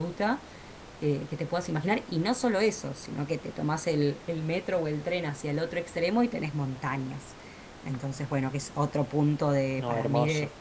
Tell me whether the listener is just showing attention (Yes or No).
Yes